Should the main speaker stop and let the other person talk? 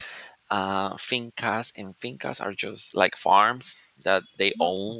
No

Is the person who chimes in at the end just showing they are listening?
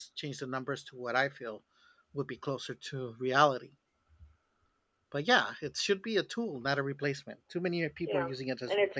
No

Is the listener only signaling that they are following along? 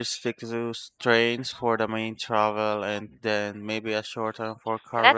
No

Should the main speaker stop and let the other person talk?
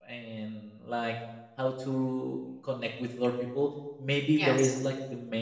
No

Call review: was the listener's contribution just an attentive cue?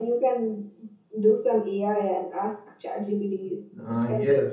No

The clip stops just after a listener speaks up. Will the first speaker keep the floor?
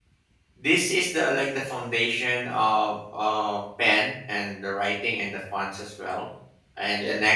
Yes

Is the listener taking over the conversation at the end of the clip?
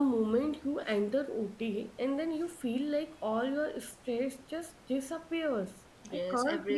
Yes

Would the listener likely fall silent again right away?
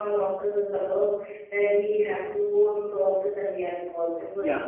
No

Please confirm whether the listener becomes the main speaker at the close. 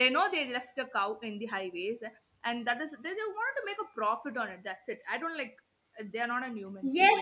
Yes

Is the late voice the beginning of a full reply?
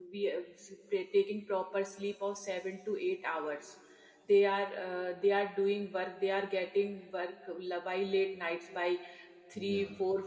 No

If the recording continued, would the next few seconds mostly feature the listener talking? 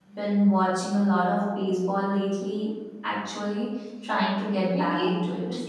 Yes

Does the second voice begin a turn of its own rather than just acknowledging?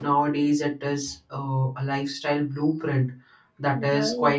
No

